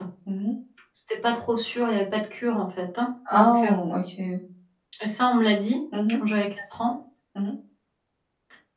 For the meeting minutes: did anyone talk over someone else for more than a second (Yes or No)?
No